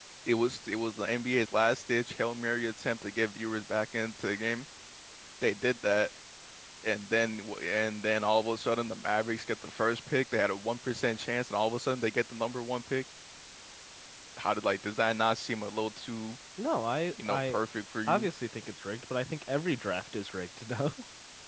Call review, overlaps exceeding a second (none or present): none